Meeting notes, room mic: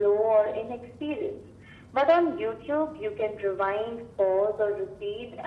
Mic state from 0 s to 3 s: echo only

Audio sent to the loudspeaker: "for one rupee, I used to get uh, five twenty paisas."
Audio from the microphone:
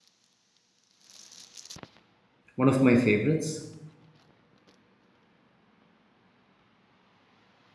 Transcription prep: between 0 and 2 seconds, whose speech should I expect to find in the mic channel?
neither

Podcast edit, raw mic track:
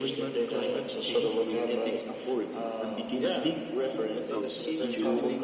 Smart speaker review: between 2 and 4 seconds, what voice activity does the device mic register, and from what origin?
echo only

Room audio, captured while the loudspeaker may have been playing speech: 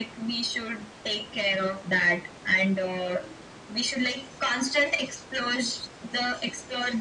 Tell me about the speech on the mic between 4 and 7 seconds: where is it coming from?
echo only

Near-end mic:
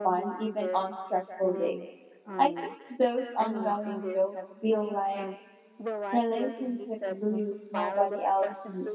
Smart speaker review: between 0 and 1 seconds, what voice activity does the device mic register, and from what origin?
both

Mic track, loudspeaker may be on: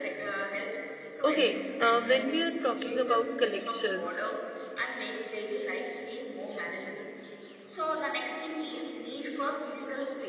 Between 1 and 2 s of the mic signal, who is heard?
both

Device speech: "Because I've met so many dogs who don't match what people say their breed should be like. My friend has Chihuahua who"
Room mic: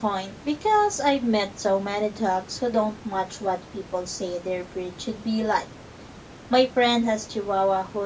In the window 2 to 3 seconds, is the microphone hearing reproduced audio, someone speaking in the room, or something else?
echo only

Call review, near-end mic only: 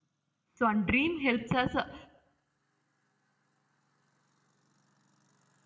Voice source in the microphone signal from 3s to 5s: neither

